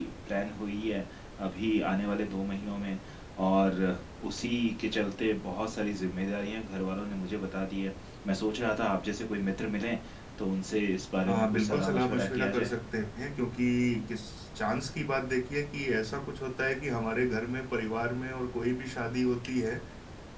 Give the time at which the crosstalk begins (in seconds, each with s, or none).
11.3 s